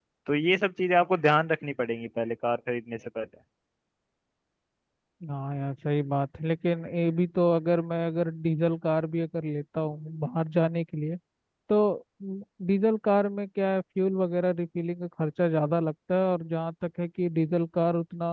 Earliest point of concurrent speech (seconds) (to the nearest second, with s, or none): none